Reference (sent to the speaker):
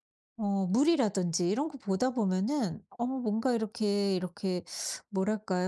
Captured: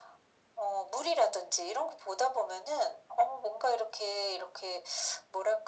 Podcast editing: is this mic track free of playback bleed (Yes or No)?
No